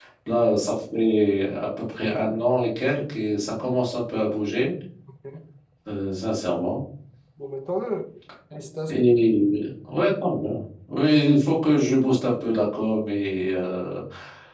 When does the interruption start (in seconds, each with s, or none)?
none